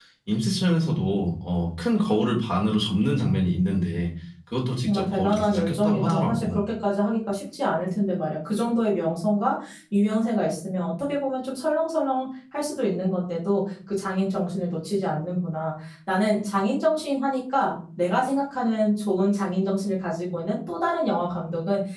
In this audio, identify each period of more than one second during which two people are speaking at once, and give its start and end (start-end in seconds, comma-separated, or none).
4.8-6.6